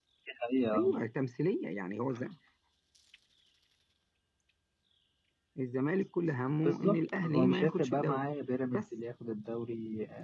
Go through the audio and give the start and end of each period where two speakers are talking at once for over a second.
6.7-8.2

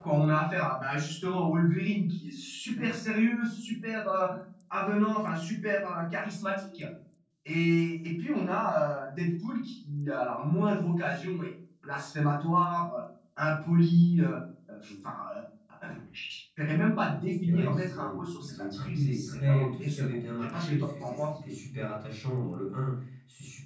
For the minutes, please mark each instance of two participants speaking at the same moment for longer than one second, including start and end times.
17.4-21.4

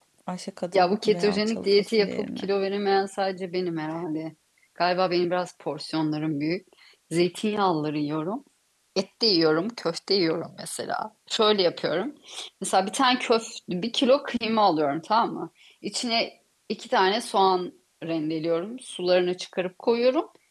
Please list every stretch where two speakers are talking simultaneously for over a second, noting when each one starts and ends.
0.7-2.5

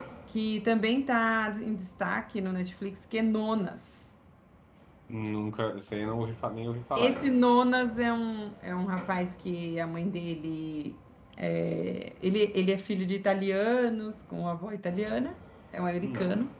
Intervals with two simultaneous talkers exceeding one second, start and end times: none

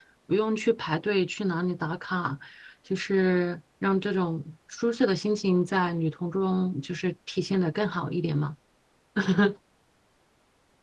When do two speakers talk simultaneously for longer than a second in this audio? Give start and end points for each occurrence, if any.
none

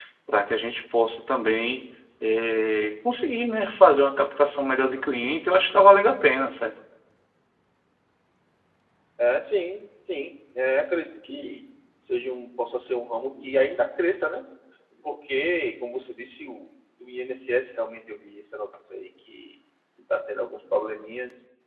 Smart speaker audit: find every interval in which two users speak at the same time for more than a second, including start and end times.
none

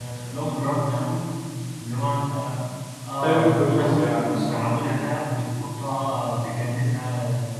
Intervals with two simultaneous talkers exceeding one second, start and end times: 3.2-4.7

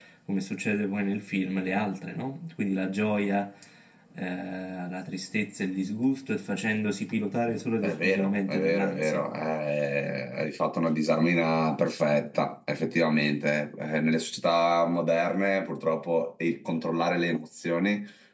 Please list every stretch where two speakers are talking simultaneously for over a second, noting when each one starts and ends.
7.8-9.2

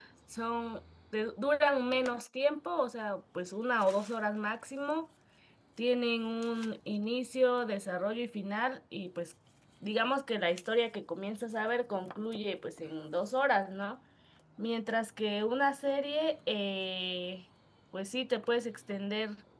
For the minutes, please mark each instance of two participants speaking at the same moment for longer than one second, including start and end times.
none

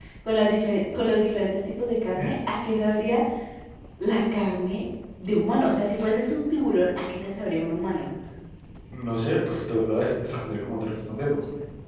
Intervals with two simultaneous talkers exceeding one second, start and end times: none

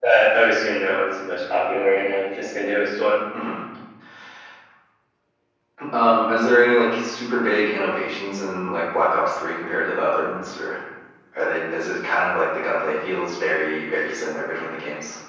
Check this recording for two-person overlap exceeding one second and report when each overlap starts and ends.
none

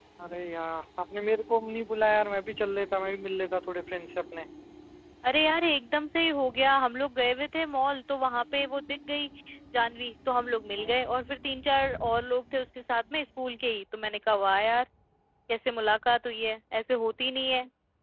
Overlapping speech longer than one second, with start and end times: none

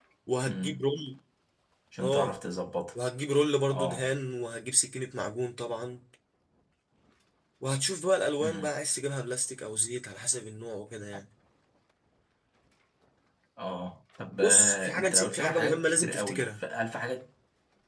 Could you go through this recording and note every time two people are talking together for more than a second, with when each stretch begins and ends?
14.4-16.6

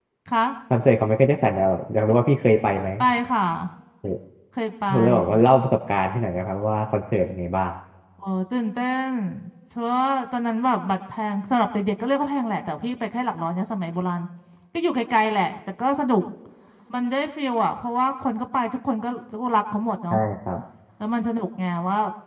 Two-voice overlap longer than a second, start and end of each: none

